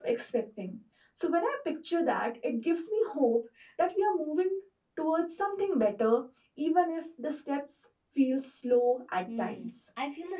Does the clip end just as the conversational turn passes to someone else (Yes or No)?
Yes